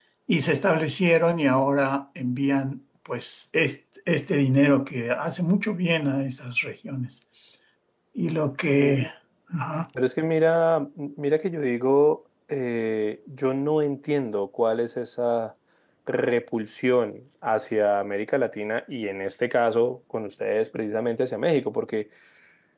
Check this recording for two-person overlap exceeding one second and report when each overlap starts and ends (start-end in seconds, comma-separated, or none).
none